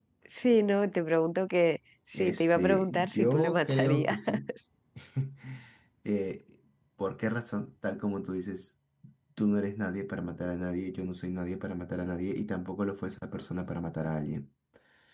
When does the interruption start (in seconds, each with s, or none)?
2.1 s